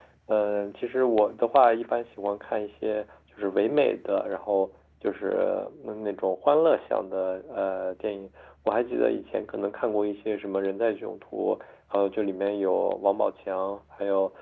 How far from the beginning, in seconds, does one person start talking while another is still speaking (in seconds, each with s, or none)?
none